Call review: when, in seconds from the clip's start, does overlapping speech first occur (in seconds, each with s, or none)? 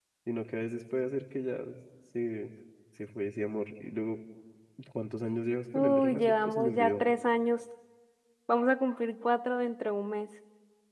5.8 s